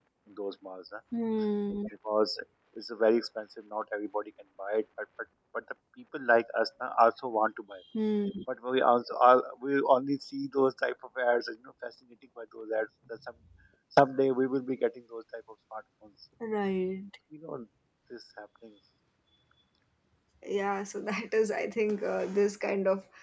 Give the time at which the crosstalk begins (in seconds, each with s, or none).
none